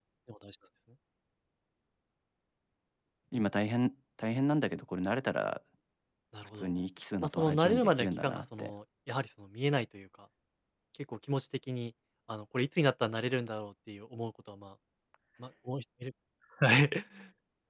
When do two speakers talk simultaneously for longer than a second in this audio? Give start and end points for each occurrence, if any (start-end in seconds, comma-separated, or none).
7.2-8.7